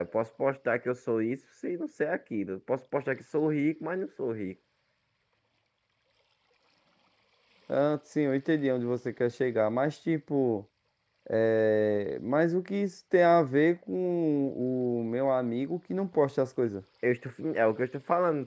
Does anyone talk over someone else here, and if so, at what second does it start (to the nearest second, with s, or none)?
none